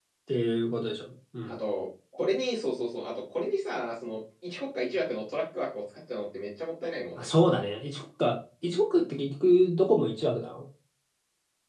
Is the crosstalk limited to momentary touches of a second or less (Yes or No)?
Yes